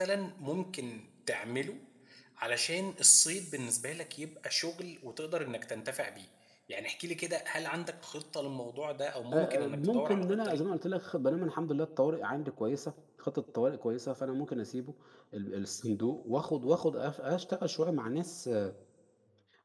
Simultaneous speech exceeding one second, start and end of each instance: 9.3-10.6

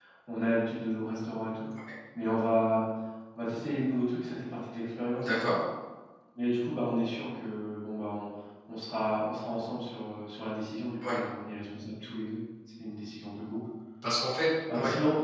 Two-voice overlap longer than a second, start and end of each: none

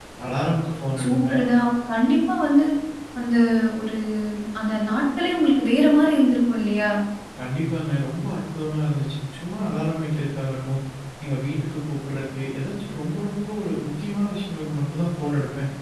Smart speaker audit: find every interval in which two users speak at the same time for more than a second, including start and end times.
none

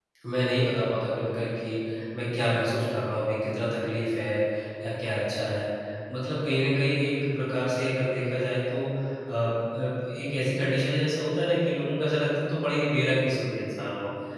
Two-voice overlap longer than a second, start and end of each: none

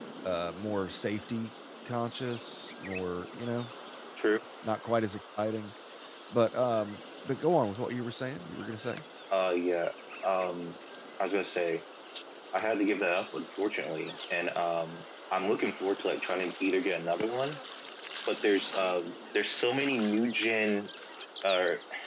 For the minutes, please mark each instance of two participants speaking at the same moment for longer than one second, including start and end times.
none

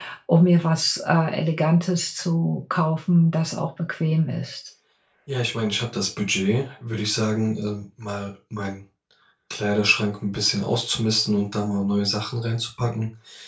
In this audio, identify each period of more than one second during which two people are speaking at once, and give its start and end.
none

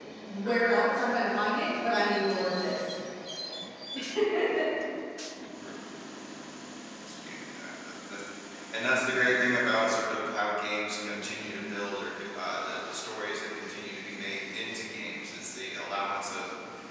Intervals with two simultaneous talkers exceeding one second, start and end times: none

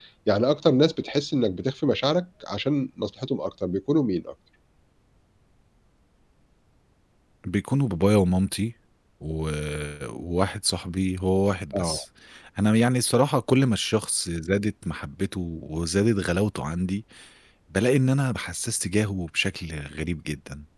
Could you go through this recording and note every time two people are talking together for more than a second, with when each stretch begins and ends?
none

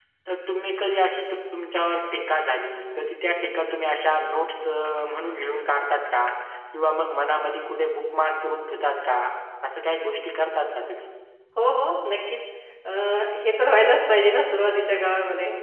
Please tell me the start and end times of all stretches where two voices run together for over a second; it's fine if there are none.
none

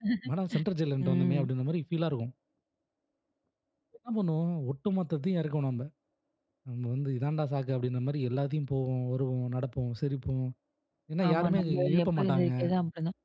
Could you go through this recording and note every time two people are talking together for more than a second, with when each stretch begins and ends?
11.3-12.5

